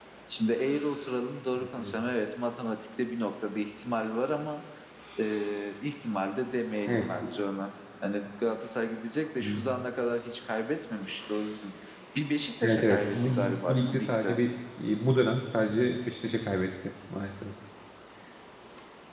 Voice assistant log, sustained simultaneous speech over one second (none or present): present